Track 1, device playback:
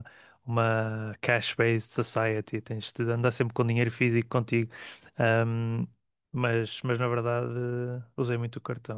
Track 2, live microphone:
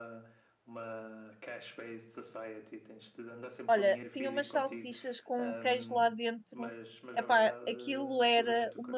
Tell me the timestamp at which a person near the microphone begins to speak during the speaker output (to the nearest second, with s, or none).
4 s